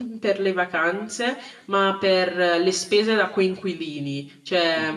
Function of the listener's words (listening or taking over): listening